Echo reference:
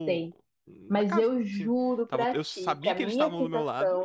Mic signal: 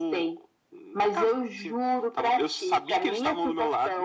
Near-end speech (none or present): none